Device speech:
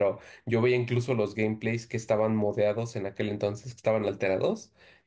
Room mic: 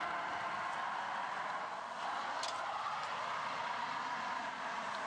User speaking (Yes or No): No